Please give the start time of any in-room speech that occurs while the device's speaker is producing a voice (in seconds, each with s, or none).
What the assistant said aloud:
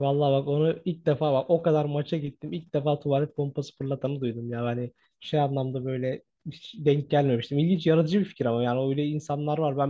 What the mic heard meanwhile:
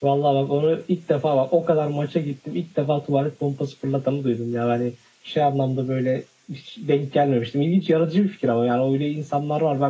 none